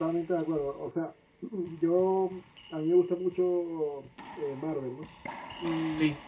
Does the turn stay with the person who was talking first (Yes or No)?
Yes